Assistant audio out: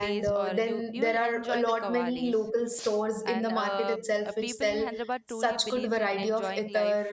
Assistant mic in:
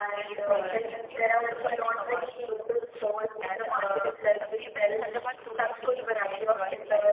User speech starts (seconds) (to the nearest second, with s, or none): 0 s